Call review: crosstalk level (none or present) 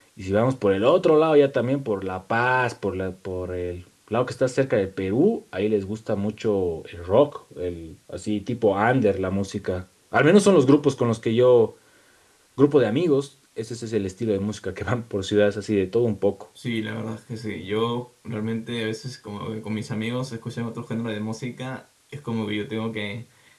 none